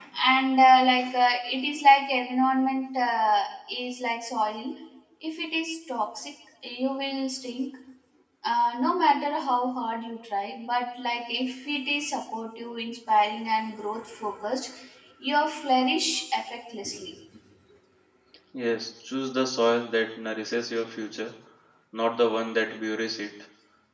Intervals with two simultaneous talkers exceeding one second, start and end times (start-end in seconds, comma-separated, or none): none